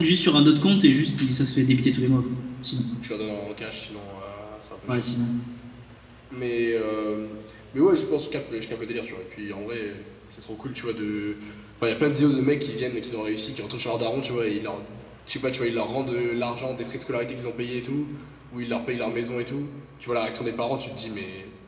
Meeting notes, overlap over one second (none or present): none